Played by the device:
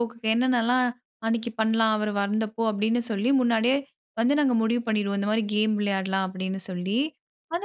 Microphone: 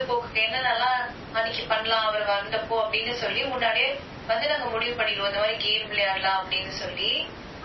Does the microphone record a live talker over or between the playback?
No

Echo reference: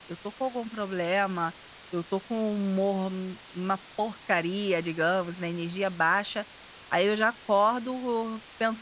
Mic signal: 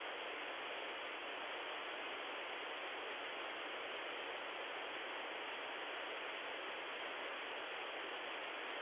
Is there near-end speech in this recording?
No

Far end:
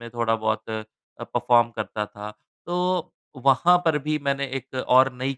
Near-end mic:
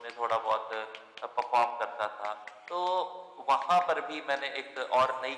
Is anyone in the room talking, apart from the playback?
No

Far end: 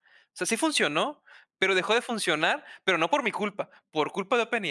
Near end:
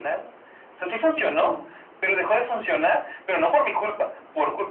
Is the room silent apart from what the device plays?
No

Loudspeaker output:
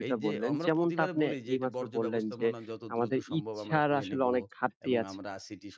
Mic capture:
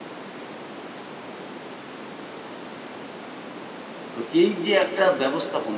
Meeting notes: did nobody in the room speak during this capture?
No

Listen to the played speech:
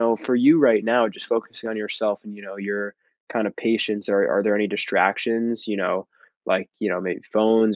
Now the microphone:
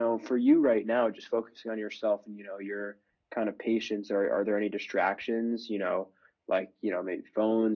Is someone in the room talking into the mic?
No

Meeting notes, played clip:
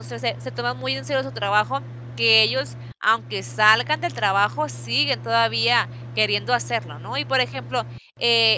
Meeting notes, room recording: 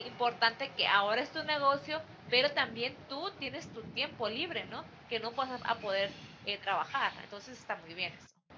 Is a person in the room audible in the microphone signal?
Yes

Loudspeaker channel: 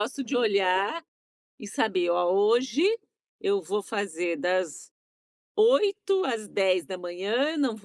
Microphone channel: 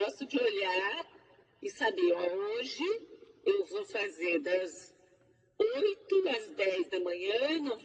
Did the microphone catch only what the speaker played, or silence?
Yes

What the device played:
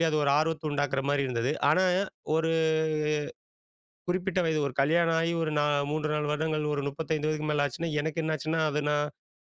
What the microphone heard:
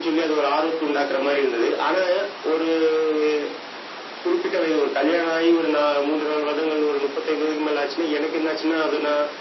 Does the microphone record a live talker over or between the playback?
No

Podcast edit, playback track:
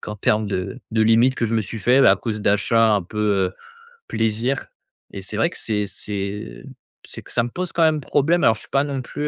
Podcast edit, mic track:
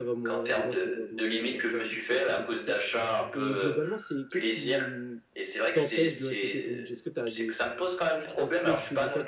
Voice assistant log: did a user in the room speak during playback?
Yes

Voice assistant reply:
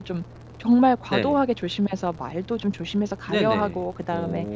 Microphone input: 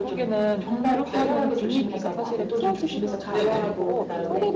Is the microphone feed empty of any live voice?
No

